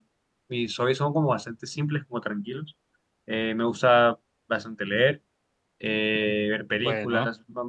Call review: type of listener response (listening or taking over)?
listening